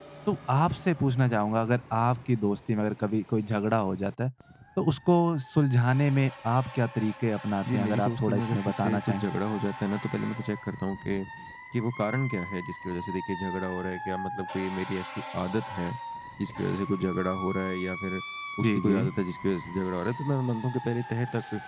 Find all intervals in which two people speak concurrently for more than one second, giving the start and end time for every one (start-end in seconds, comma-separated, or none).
7.7-9.2